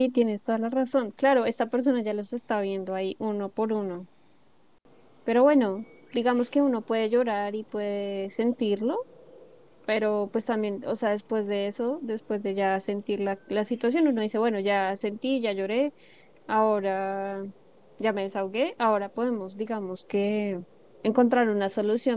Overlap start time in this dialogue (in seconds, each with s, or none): none